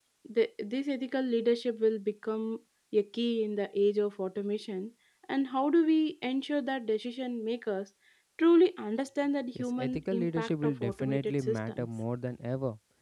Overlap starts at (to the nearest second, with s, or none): 10 s